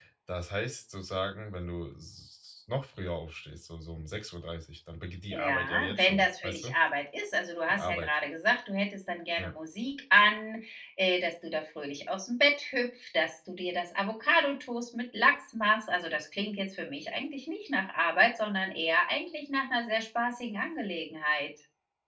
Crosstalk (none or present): present